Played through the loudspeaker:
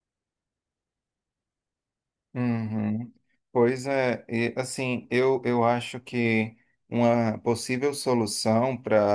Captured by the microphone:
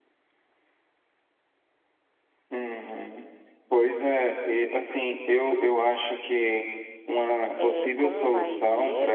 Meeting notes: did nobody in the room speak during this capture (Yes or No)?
No